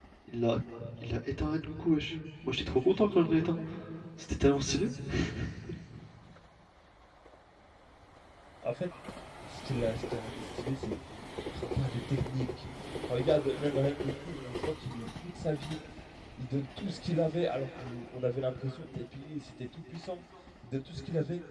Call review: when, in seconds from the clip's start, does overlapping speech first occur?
none

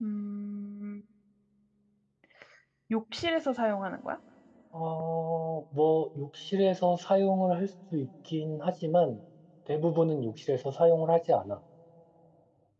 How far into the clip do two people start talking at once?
none

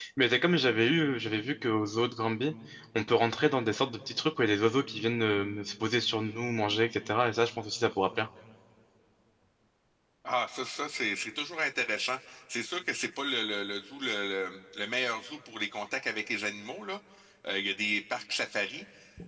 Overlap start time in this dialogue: none

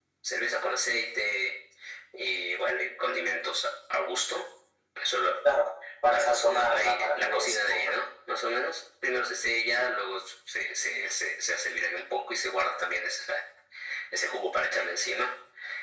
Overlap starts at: 6 s

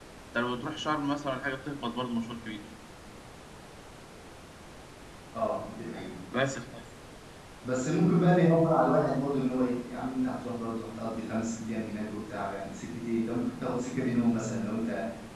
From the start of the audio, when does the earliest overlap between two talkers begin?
none

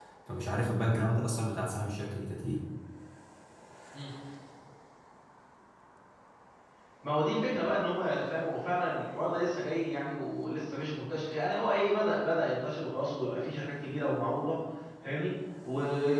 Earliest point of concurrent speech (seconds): none

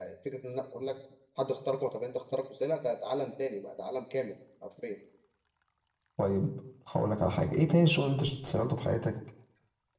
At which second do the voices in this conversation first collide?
none

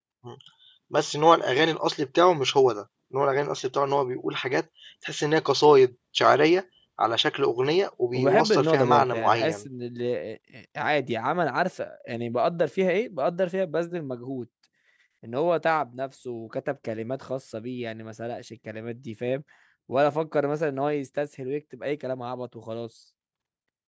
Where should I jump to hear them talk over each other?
8 s

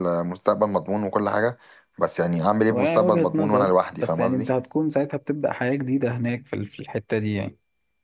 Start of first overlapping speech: 3 s

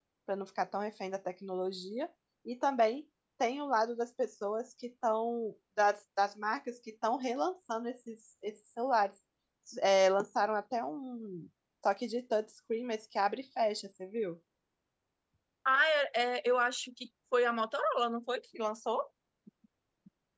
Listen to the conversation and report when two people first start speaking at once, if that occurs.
none

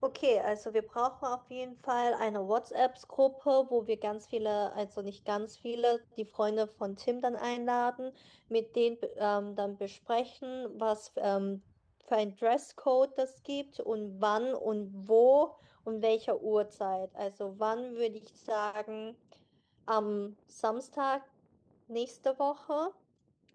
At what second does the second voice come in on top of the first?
none

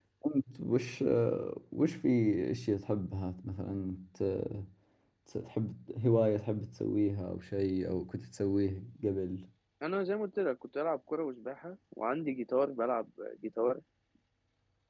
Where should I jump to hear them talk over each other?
none

